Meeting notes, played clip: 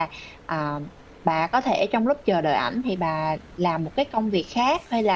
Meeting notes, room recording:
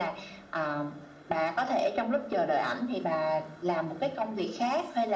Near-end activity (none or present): none